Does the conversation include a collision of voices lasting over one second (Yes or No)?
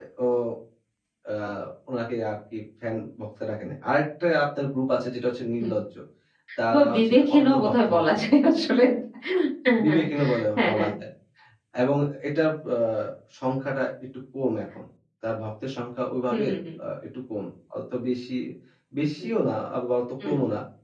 Yes